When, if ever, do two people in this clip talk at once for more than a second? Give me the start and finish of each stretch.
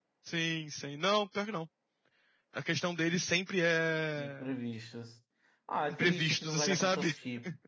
5.9-7.1

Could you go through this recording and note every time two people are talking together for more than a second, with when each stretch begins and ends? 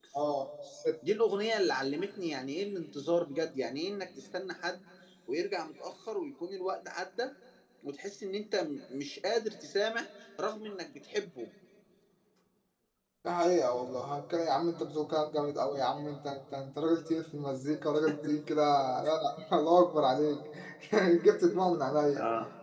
none

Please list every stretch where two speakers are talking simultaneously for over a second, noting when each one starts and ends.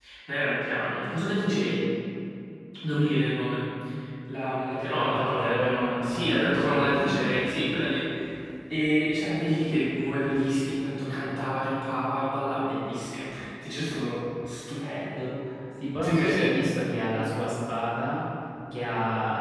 5.0-7.2

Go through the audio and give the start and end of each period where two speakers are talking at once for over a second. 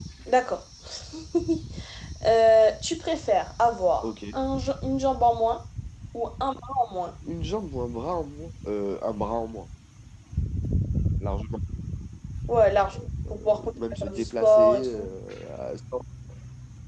13.3-15.1

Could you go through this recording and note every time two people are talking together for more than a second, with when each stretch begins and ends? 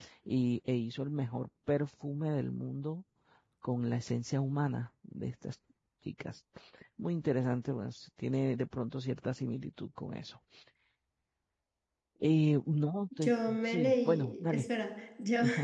13.2-14.7

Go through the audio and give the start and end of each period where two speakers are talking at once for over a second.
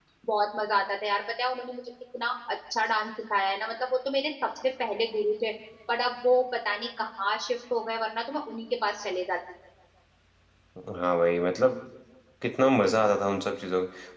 none

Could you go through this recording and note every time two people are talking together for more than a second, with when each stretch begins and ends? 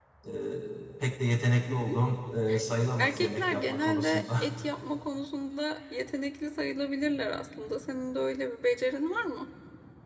3.0-4.2

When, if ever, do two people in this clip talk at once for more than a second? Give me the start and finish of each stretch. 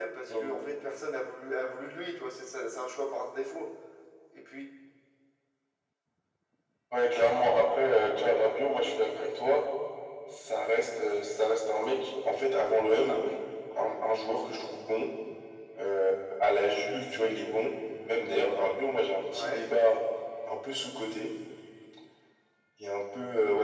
none

